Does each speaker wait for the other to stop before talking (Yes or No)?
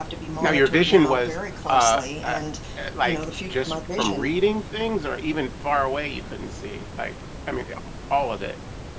No